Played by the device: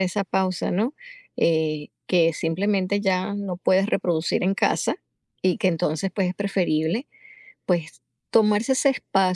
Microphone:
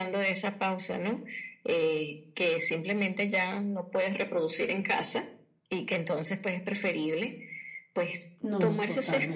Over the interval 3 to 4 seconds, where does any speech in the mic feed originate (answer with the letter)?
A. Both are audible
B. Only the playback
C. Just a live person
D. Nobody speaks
B